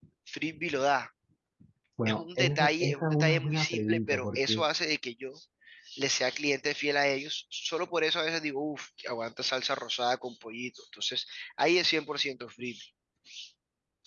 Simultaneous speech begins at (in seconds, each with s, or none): 2.1 s